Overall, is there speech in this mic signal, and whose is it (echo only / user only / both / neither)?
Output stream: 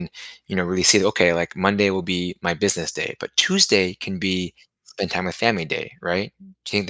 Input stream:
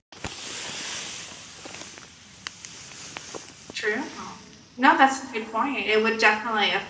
user only